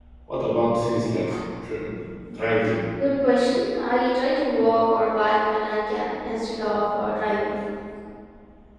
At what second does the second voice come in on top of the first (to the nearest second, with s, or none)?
none